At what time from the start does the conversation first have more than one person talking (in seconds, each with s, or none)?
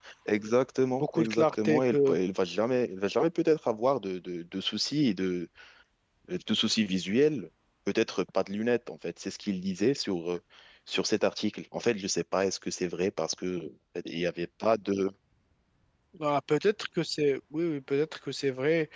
0.9 s